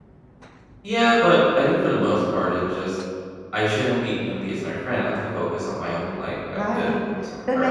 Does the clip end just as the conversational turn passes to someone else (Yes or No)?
Yes